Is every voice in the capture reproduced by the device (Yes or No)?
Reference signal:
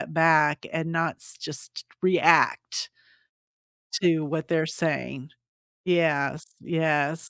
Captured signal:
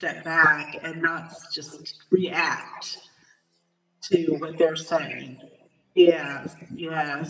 Yes